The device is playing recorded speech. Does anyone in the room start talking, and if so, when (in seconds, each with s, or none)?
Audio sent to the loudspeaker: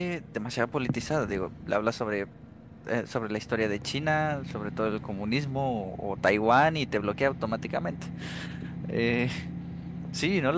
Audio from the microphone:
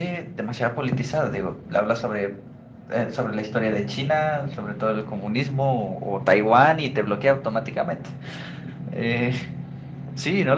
none